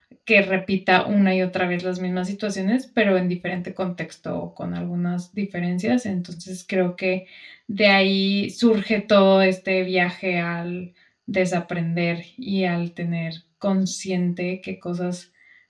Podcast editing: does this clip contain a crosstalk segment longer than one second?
No

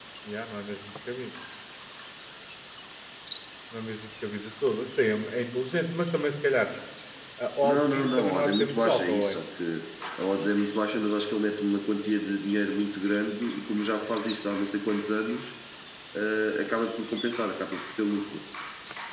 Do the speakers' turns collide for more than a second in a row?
Yes, from 7.6 s

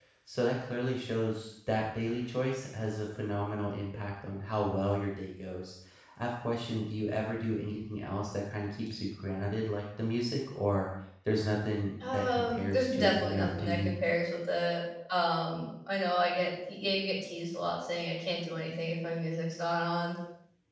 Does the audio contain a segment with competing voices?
Yes, from 12.0 s

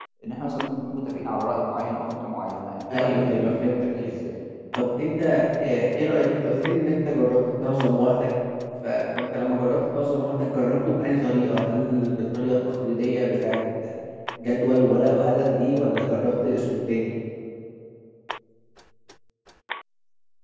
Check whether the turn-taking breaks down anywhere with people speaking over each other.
Yes, from 2.9 s

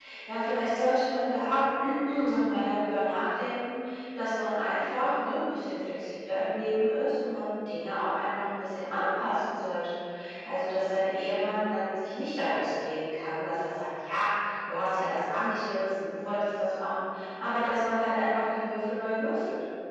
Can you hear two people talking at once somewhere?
No

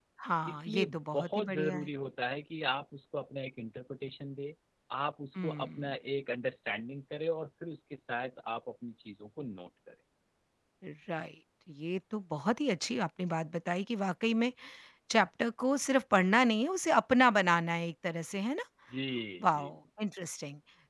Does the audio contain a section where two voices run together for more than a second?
Yes, from 0.5 s

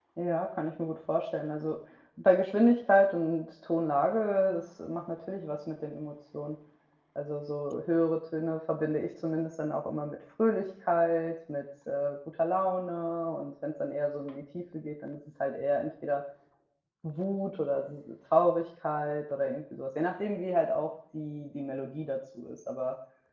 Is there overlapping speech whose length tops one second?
No

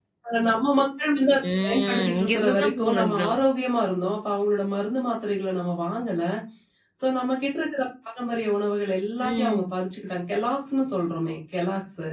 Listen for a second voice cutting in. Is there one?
Yes, from 1.6 s

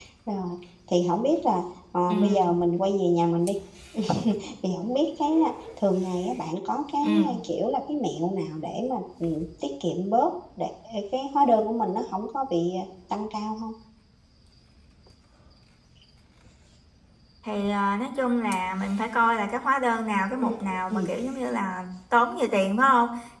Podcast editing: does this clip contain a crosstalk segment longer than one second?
No

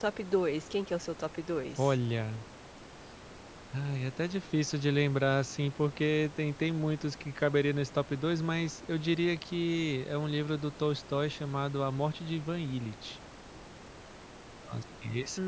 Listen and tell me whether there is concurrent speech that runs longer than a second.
No

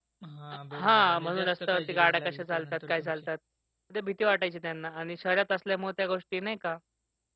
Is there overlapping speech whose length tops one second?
Yes, from 0.7 s

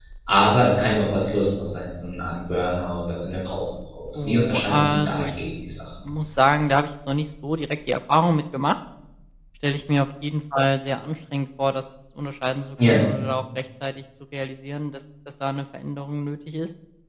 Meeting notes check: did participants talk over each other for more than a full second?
Yes, from 4.2 s

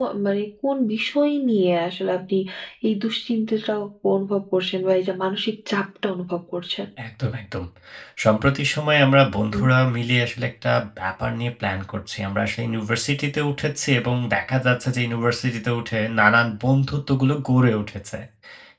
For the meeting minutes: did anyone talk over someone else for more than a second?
No

